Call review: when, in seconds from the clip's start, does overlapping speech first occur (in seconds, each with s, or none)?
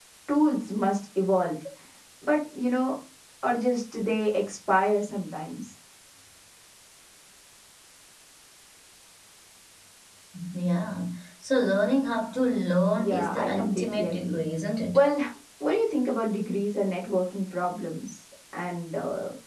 13.0 s